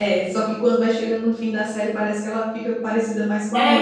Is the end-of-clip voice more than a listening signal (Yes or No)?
Yes